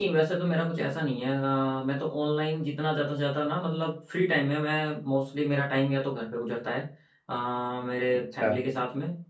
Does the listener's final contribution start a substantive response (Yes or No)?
No